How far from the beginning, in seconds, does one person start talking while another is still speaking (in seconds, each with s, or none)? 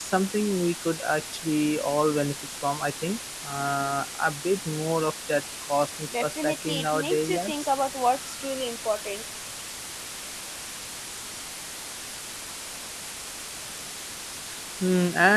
6.1 s